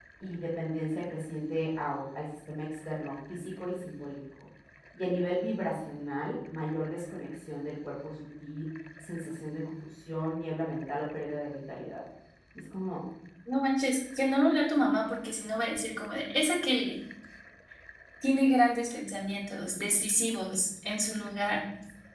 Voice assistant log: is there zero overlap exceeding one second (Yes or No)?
Yes